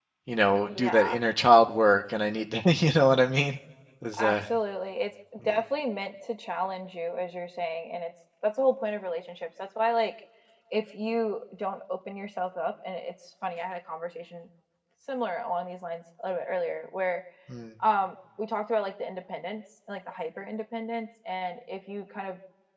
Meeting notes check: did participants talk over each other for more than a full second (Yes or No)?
No